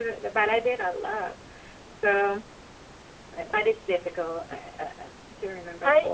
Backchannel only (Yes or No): No